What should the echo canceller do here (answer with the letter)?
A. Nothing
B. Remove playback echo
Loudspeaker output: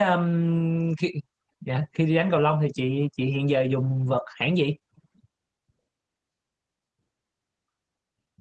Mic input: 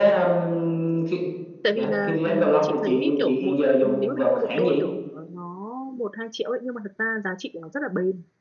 B